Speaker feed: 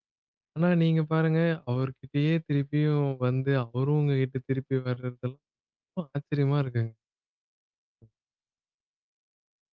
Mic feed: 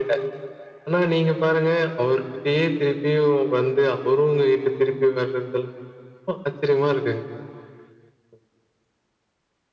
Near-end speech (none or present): none